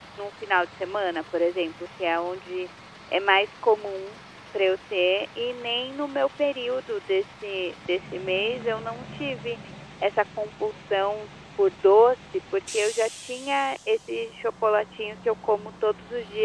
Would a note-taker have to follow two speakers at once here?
No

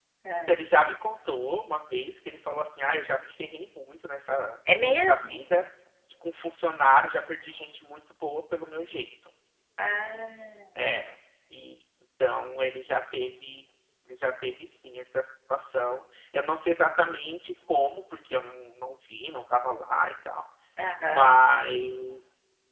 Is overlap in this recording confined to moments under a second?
Yes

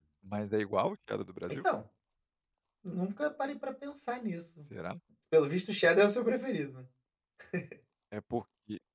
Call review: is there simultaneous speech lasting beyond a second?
No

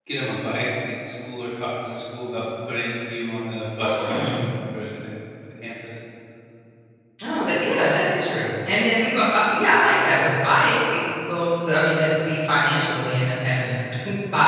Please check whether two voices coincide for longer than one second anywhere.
No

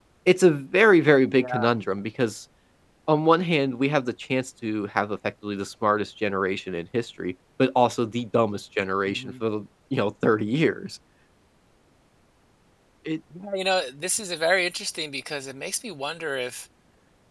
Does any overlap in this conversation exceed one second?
No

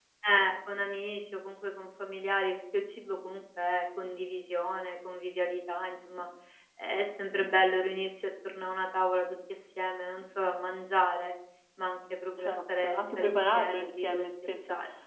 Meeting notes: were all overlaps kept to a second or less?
No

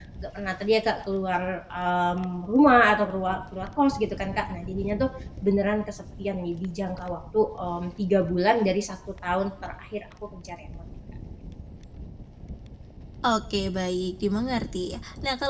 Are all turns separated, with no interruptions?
Yes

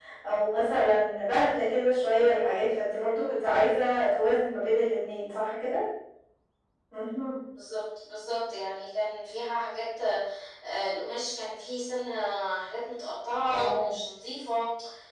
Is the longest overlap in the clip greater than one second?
No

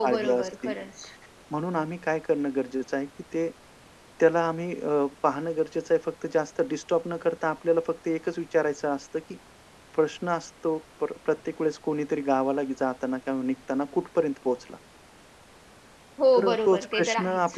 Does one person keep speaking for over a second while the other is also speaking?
Yes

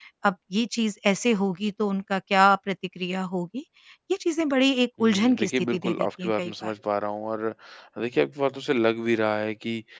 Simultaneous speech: Yes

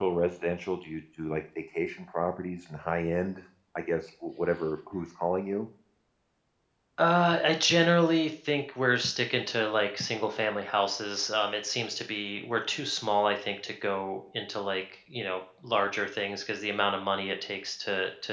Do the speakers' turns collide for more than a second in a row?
No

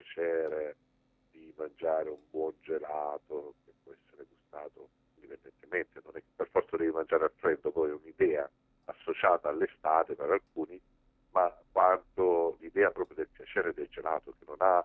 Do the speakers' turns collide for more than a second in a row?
No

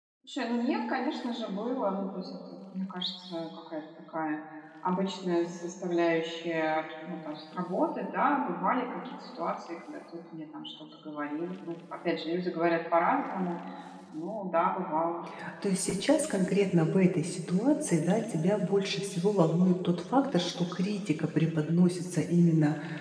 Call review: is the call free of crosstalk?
Yes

